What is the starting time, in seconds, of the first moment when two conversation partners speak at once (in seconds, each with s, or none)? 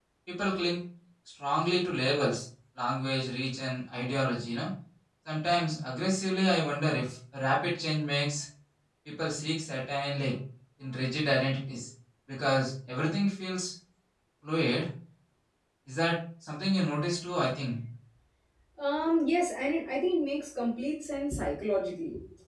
none